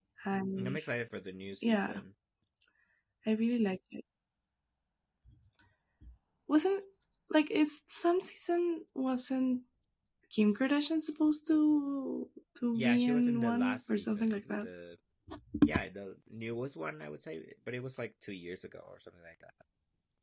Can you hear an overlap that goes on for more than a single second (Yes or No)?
Yes